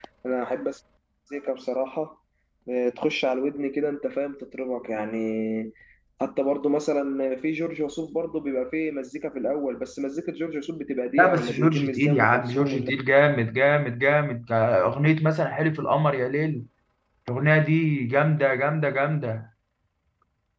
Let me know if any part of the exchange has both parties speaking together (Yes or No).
Yes